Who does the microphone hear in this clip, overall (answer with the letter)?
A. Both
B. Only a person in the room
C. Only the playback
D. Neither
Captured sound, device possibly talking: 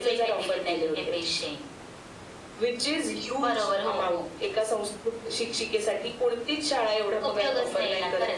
C